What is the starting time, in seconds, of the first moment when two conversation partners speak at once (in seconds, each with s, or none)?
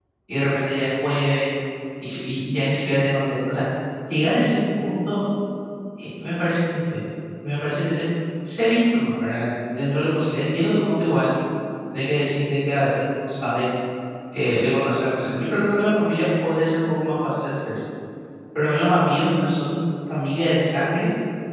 none